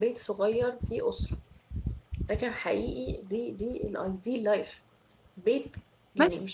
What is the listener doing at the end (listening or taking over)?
listening